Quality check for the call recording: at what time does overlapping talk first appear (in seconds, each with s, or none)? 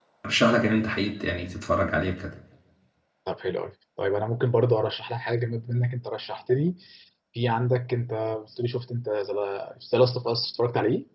none